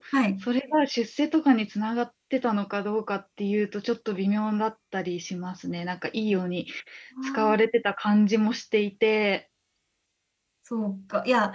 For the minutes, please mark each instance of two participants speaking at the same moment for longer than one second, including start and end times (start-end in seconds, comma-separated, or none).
none